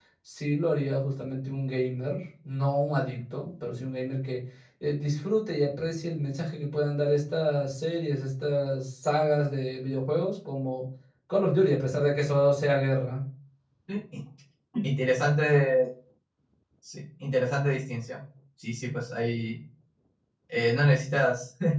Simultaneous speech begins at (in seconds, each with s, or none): none